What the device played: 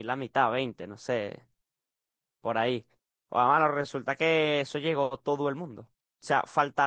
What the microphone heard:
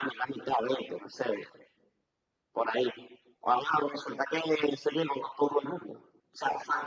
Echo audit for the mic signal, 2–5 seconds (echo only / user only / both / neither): echo only